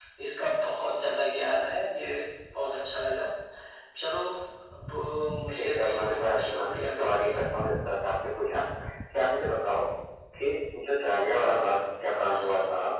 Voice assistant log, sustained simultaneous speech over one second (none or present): present